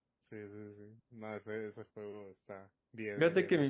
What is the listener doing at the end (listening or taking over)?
taking over